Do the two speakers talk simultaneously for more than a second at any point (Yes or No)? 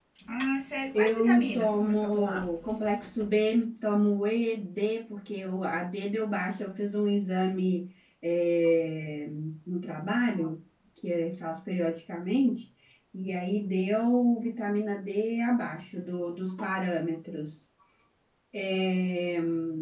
Yes